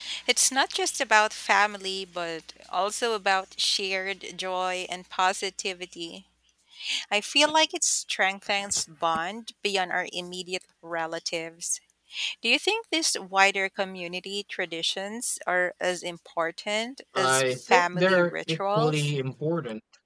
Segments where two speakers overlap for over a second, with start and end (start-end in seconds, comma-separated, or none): 17.2-19.1